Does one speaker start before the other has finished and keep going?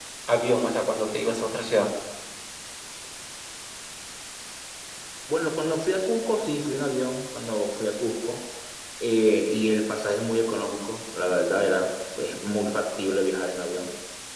No

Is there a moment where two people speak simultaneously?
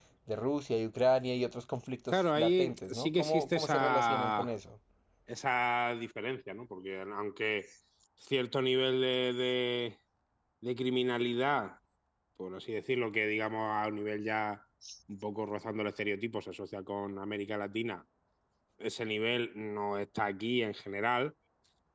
Yes, from 2.1 s

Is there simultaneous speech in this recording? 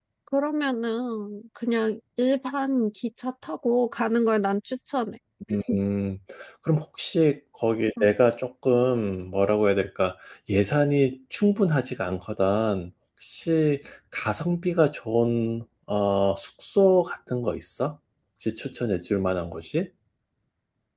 No

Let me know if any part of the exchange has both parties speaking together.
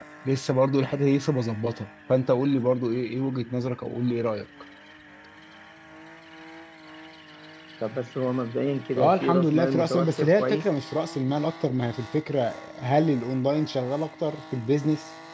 Yes, from 8.9 s

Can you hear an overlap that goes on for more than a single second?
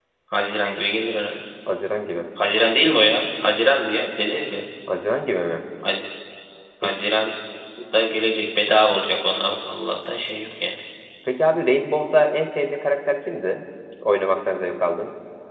No

